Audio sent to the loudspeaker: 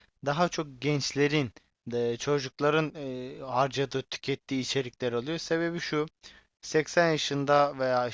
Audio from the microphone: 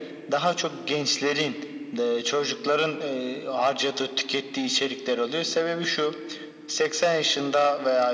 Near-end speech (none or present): none